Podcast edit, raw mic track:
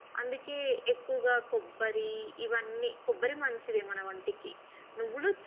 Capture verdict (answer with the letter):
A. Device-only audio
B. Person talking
A